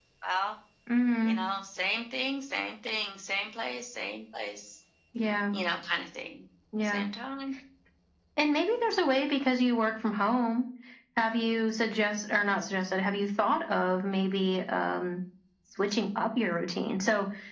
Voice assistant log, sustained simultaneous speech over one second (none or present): none